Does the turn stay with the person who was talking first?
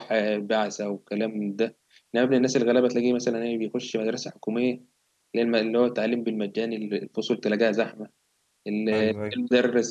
Yes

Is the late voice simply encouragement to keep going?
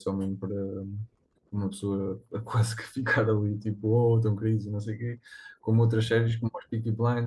Yes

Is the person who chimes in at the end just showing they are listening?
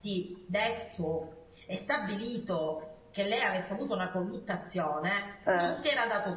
Yes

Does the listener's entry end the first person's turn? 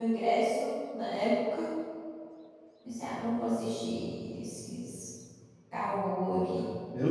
Yes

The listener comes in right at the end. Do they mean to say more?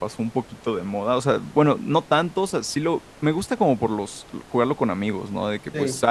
No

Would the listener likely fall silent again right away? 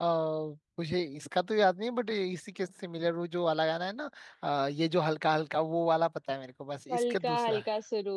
No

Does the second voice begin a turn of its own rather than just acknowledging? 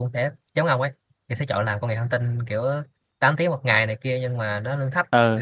No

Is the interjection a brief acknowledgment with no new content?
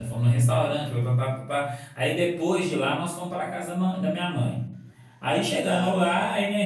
Yes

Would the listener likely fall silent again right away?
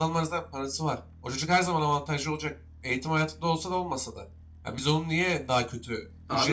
Yes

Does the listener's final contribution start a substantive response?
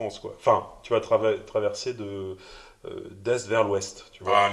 Yes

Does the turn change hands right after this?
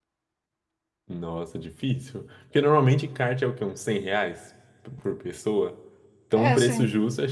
No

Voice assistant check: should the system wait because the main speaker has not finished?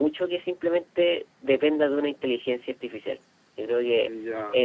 Yes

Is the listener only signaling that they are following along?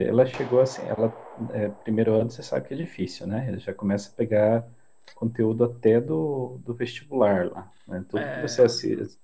Yes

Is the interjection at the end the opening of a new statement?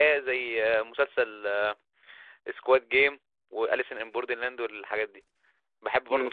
Yes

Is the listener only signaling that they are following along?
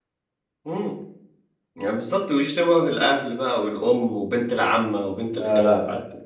No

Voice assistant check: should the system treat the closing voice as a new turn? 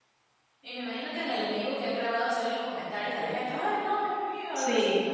Yes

